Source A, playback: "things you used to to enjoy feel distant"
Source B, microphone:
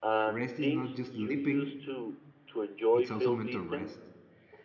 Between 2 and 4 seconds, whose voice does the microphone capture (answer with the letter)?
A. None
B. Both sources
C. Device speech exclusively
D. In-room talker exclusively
B